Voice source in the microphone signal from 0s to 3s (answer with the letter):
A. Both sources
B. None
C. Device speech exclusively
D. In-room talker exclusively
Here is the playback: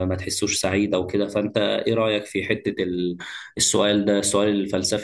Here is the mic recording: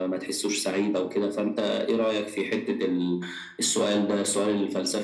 C